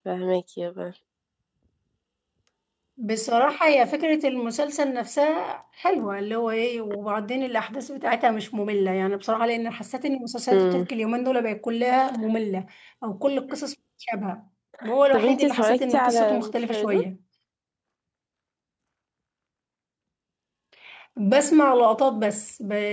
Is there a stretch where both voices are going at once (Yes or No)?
Yes